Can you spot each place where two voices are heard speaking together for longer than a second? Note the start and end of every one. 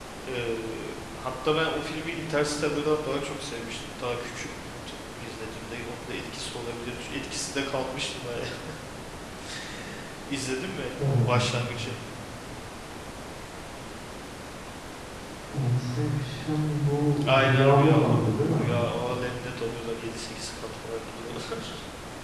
17.4-18.7

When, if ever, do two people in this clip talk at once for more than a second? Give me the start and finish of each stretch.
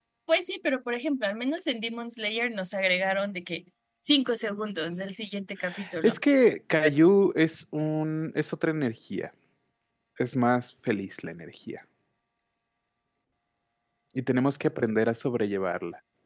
none

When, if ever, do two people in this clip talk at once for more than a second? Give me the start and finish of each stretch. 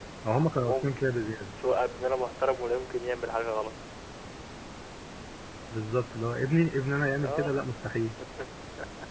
none

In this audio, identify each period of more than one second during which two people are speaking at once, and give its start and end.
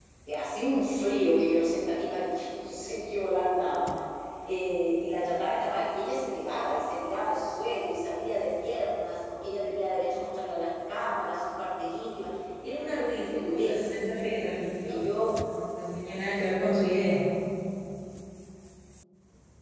12.7-14.0

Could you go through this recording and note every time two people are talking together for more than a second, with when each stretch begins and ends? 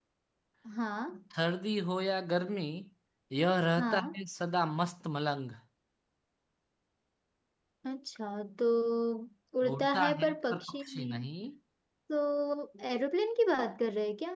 9.7-11.2

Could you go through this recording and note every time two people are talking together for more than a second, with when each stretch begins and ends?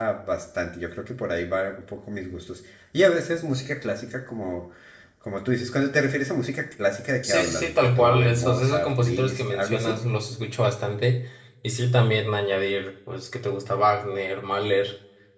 7.2-10.0

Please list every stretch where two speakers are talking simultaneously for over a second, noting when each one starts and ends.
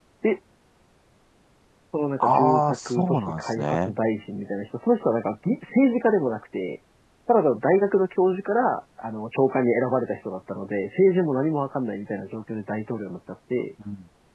2.2-3.9

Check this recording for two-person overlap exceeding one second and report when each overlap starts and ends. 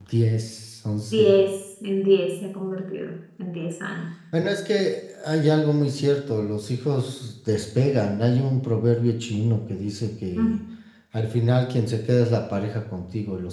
none

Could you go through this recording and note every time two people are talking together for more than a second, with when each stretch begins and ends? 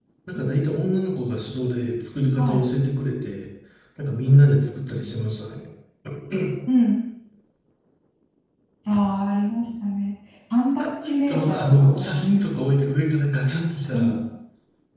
11.0-12.5

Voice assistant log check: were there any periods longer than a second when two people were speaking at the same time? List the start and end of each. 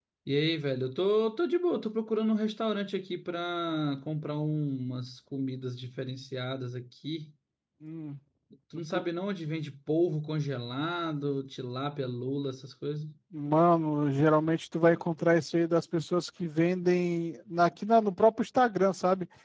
none

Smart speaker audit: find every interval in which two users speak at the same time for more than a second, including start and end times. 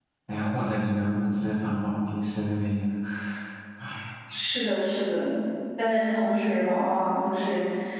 none

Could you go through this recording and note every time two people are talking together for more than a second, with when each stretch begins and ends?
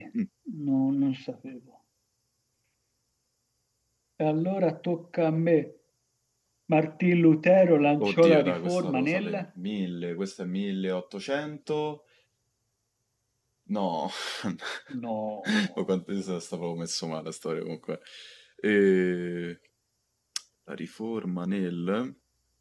8.0-9.4

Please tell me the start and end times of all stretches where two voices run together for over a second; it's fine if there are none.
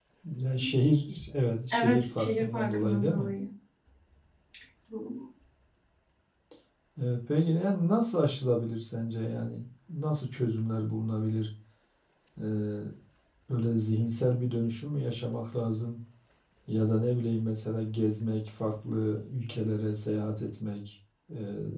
1.7-3.3

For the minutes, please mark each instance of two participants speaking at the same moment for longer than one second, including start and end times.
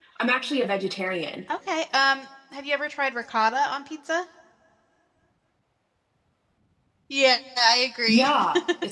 none

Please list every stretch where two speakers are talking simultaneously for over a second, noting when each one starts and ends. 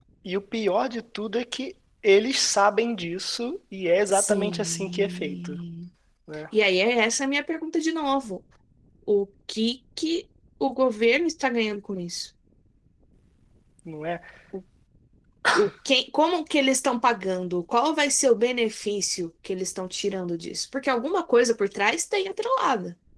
4.1-5.5

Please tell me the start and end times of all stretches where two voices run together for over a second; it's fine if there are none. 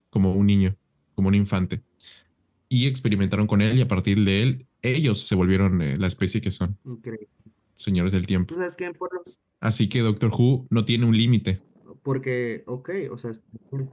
none

